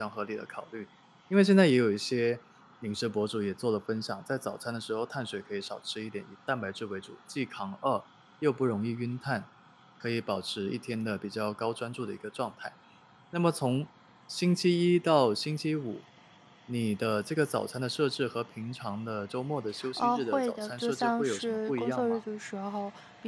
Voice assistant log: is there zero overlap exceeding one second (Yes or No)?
No